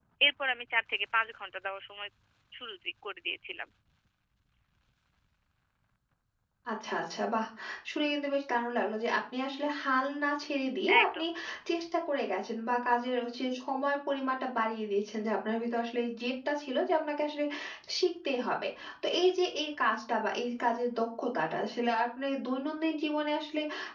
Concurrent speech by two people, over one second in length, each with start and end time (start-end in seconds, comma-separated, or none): none